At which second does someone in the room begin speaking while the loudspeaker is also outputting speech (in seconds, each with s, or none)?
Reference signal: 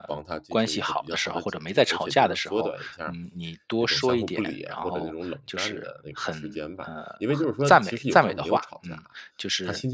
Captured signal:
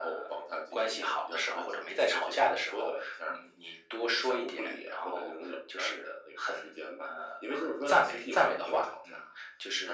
none